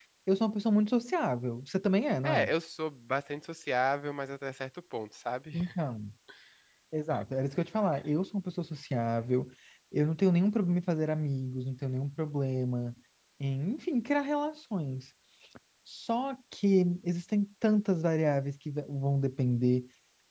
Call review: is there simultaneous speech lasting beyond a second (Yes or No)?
No